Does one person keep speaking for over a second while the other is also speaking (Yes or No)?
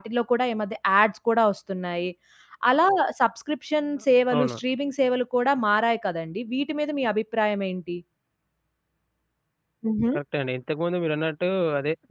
No